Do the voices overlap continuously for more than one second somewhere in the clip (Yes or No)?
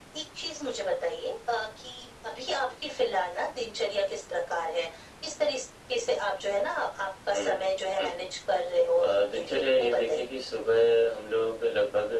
Yes